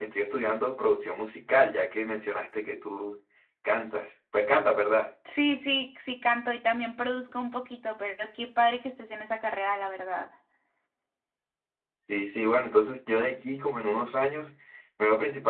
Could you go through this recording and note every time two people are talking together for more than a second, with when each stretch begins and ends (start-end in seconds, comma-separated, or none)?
none